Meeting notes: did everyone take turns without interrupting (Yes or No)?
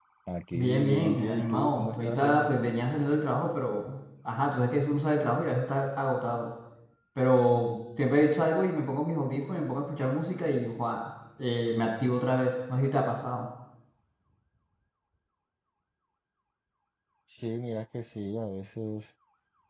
No